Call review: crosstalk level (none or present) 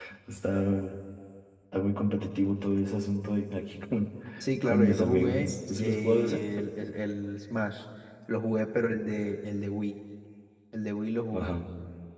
present